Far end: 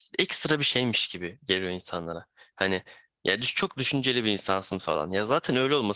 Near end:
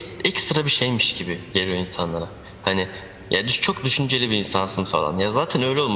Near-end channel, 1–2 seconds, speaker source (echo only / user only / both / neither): echo only